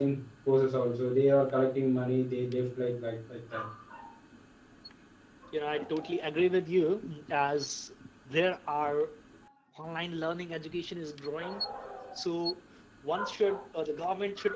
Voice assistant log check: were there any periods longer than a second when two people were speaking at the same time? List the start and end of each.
none

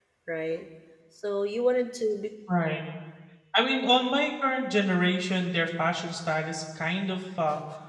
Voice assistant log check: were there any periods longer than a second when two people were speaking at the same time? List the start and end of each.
none

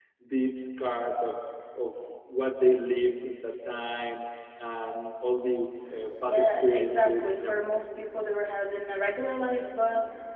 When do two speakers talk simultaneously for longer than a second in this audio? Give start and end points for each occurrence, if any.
6.2-7.6

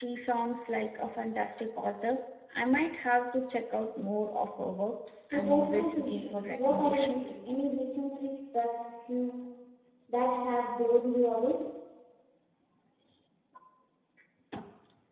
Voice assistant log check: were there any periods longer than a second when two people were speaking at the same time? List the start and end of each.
5.3-7.4

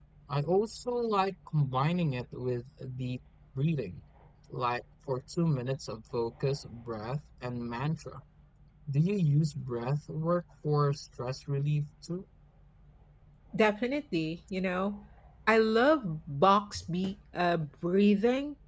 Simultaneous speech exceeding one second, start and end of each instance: none

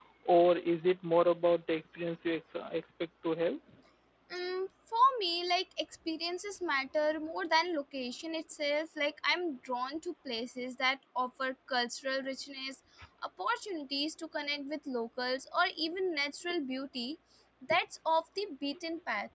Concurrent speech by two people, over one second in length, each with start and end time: none

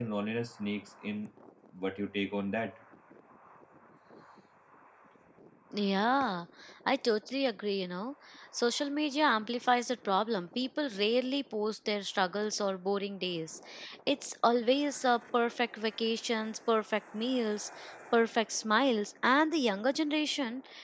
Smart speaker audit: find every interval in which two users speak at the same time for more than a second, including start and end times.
none

